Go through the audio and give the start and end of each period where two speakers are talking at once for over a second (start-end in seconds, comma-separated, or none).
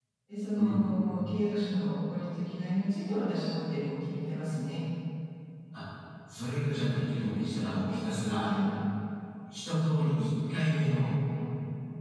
none